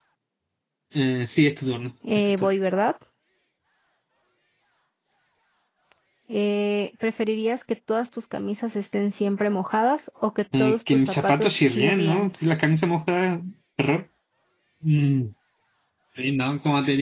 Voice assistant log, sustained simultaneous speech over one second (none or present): present